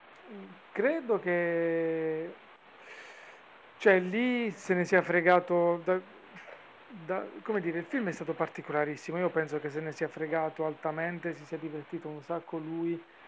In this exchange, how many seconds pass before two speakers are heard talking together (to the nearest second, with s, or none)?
none